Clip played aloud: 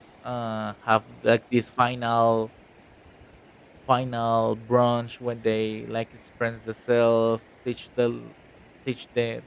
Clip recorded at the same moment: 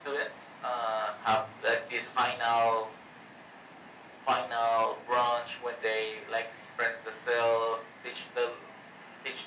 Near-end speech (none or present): none